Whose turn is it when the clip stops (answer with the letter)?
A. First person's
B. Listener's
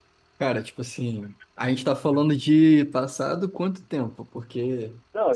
B